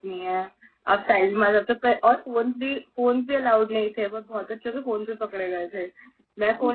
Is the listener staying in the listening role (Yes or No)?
Yes